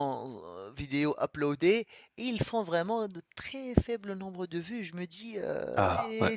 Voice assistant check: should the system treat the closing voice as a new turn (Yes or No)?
No